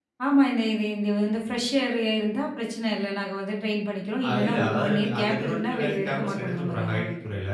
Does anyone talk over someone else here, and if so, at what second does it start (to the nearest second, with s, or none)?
4 s